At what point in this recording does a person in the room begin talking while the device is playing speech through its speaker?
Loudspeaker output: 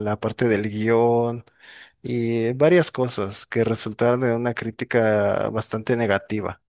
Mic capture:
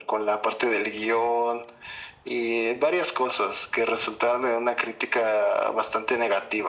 none

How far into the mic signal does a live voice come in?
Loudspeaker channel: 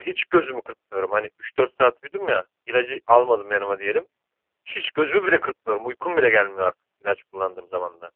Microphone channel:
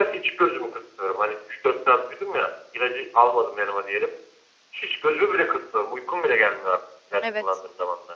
7.2 s

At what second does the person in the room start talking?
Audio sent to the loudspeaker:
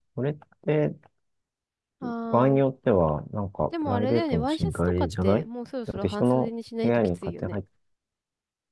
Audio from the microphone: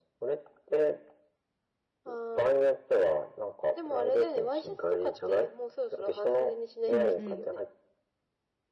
6.9 s

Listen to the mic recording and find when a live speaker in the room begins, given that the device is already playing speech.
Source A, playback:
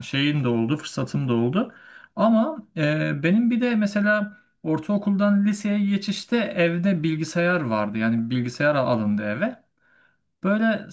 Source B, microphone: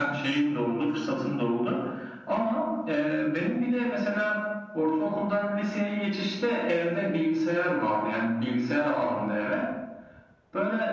none

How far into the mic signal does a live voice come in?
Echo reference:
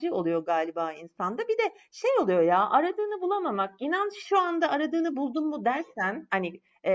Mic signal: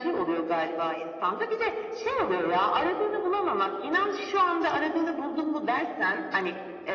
none

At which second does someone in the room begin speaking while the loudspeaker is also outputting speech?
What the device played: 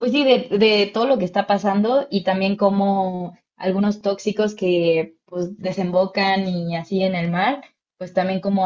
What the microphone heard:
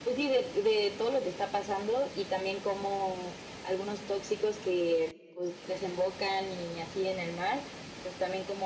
none

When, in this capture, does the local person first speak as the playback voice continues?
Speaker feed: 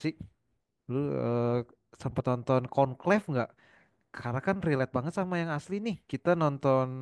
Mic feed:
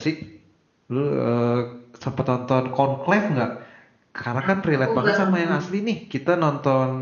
4.4 s

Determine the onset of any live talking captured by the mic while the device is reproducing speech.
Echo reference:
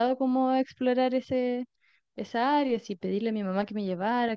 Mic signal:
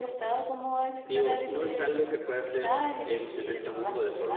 1.0 s

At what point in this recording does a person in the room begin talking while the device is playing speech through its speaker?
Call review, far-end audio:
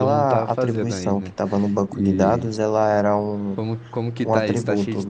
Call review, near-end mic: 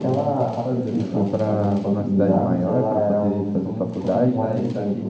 0.9 s

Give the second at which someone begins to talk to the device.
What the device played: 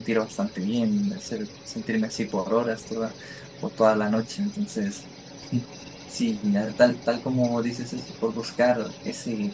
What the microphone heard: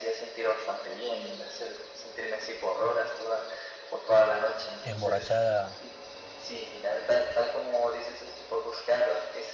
4.9 s

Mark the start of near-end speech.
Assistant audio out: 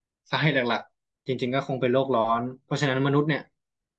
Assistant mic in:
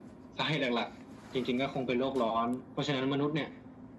none

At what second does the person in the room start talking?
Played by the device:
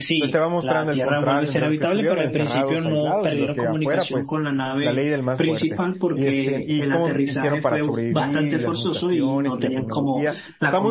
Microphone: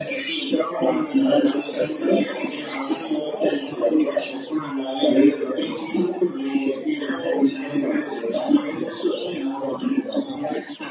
none

